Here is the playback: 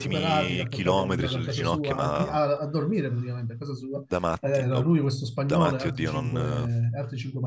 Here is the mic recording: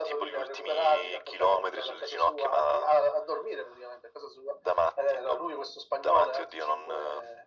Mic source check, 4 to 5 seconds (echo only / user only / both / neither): echo only